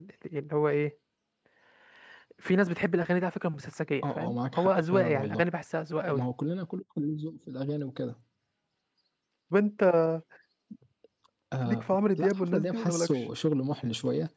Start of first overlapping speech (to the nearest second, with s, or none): 4 s